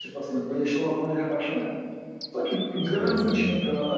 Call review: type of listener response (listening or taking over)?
listening